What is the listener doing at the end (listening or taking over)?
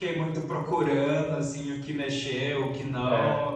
listening